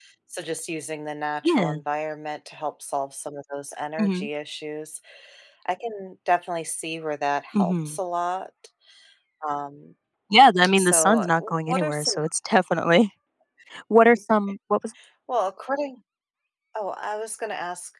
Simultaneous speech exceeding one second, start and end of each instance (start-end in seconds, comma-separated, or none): 10.8-12.1